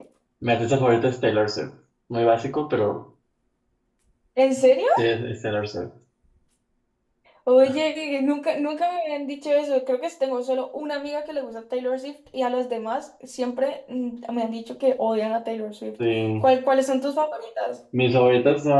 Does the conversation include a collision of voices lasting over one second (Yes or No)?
No